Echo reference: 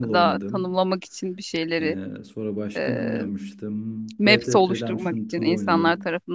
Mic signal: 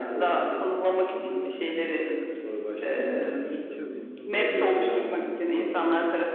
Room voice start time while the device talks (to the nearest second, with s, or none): 1 s